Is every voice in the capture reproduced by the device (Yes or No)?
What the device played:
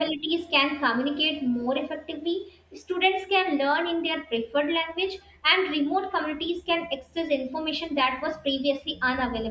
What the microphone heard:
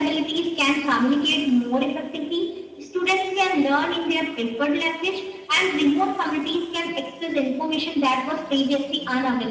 Yes